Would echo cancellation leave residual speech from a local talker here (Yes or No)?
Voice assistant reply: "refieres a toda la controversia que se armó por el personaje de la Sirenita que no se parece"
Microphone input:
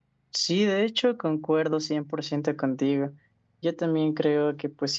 Yes